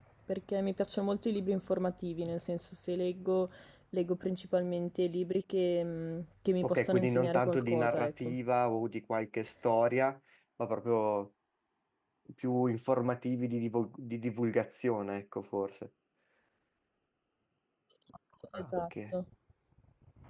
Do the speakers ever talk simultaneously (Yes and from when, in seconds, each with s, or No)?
Yes, from 6.6 s